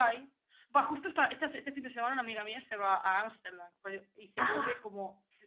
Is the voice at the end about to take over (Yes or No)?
No